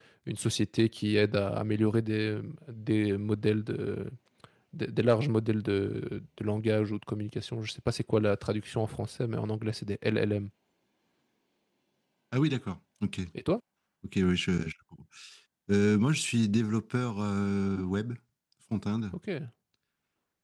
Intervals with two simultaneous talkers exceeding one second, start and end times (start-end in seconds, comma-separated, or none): none